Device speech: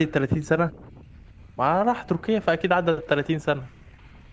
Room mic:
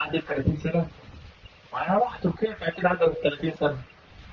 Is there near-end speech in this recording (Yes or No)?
No